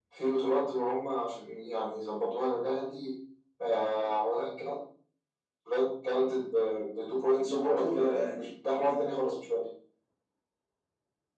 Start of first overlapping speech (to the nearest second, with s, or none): 7 s